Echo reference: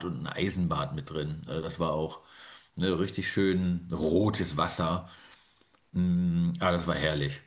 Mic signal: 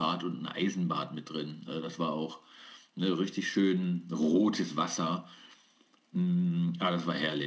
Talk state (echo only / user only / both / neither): echo only